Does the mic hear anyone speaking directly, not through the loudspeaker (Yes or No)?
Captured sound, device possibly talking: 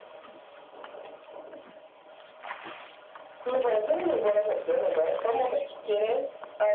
No